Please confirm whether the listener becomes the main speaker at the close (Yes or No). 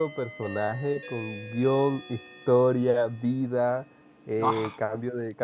No